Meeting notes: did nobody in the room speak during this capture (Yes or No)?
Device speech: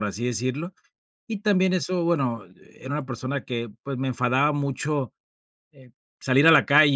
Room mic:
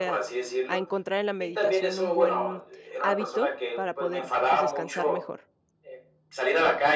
No